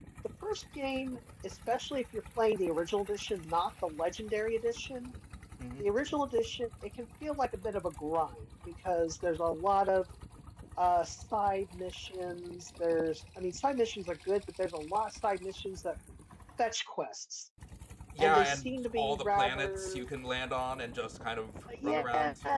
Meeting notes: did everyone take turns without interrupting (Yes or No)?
No